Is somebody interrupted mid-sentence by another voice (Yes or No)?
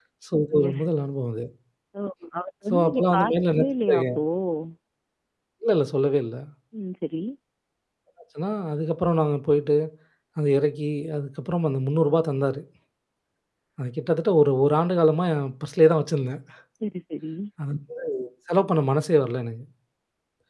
Yes